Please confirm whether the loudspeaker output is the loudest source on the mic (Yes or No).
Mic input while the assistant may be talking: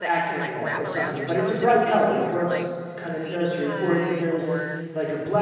No